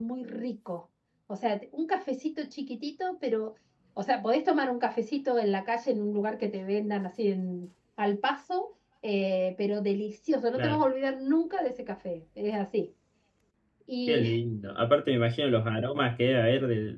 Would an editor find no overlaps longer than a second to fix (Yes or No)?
Yes